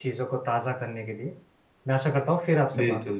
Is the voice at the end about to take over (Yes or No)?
Yes